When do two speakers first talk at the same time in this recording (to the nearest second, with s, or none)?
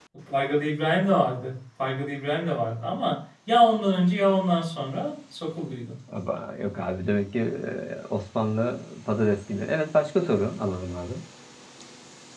none